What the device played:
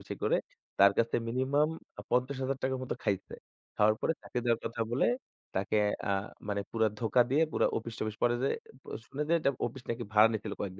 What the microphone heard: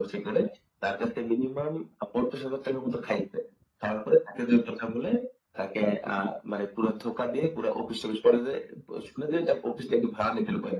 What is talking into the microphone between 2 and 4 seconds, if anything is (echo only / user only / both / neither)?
echo only